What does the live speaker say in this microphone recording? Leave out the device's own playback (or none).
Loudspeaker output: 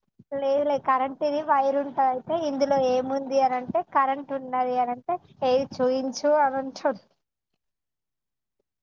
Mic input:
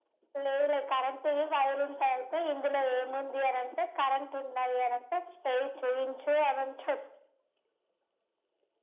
none